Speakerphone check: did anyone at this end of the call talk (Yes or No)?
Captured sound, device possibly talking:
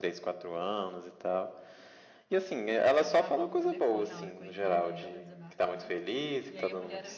Yes